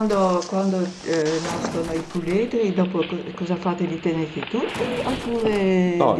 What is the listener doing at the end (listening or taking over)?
taking over